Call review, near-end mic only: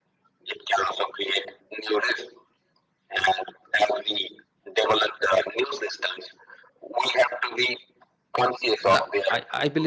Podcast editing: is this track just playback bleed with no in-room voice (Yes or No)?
No